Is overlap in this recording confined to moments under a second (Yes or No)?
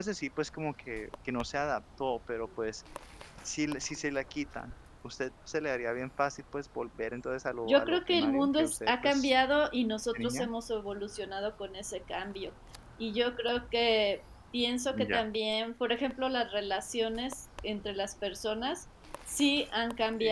No